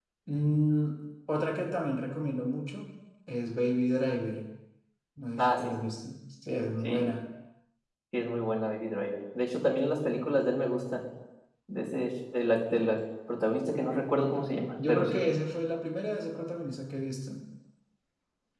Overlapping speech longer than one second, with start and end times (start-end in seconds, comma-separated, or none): none